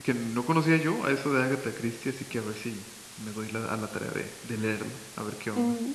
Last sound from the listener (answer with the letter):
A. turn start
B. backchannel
A